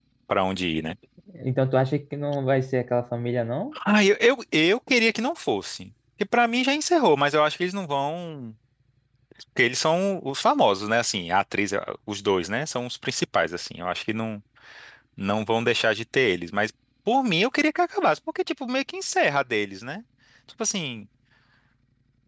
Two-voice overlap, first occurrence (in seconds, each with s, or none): none